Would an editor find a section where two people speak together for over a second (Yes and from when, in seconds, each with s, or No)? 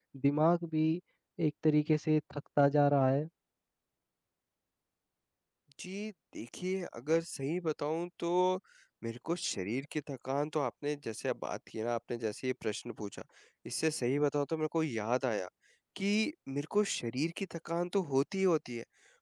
No